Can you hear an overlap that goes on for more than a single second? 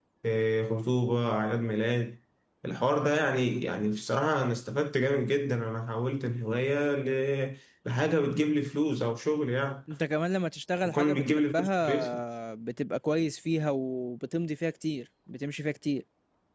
Yes, from 10.8 s

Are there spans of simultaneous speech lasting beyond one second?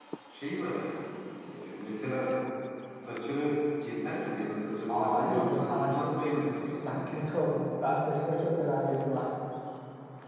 Yes, from 4.9 s

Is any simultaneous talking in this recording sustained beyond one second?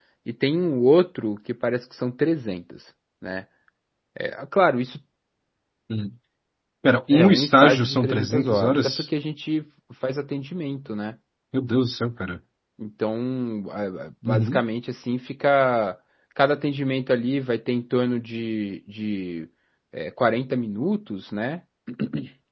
Yes, from 7.1 s

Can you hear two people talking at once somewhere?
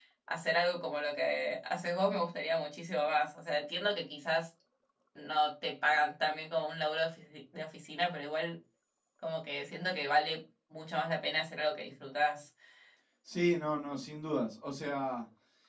No

